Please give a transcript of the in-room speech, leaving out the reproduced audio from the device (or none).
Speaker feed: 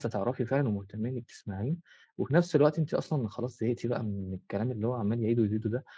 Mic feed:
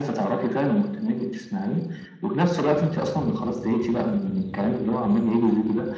none